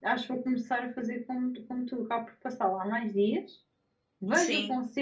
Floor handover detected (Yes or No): No